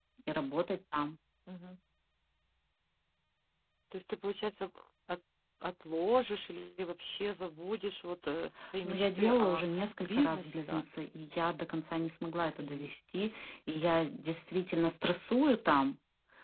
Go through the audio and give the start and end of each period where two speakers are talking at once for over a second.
8.8-10.8

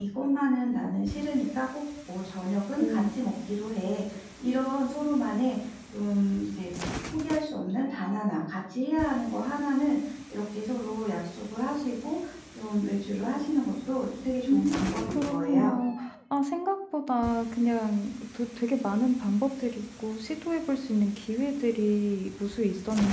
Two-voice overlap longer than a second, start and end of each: 14.5-15.8

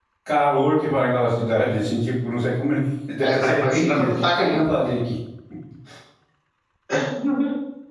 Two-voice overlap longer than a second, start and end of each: 3.2-4.9

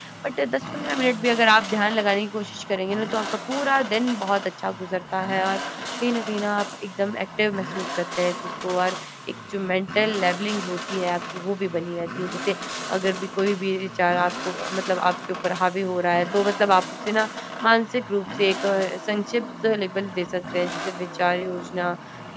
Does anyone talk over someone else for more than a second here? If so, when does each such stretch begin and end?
none

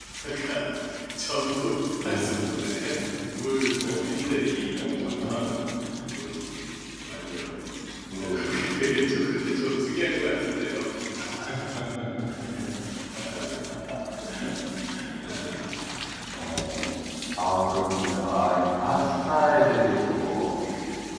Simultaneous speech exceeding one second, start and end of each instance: none

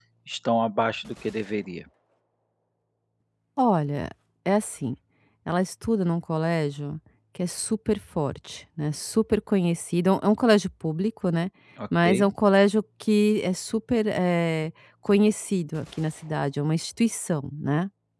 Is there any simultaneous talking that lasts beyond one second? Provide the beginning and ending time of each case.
none

